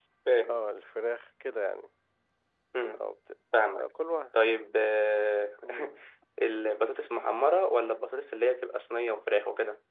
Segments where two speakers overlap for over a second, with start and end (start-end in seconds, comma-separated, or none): none